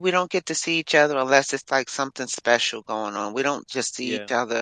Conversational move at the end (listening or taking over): listening